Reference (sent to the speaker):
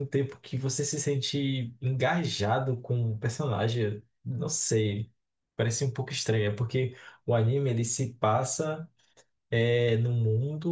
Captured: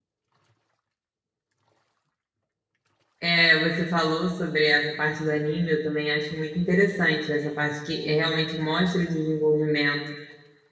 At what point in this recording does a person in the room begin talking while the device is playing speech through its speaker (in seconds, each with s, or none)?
3.2 s